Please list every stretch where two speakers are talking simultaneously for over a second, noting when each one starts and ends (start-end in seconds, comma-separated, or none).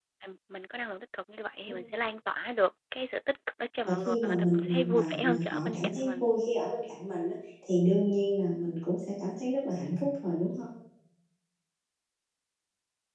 3.9-6.3